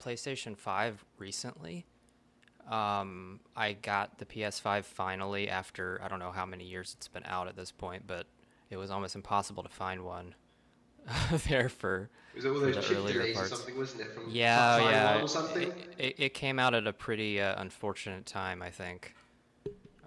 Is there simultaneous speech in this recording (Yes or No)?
Yes